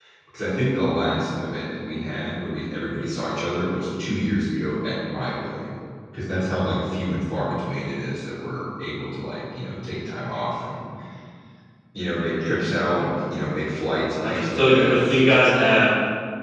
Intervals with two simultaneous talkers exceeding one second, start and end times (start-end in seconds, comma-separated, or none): 14.1-15.8